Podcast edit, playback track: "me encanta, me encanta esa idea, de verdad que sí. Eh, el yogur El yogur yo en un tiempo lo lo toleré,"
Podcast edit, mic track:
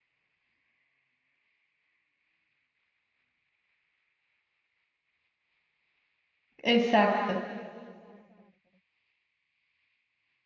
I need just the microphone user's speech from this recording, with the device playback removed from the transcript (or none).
exacto.